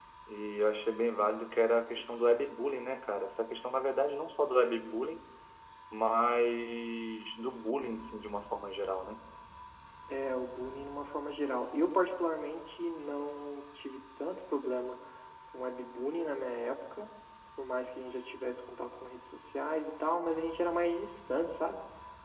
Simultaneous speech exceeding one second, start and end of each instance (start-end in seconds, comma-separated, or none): none